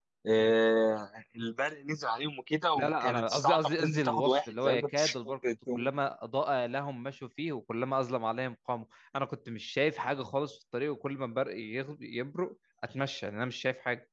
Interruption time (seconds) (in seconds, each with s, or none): 2.8 s